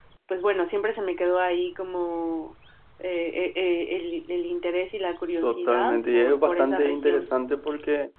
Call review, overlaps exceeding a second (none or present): present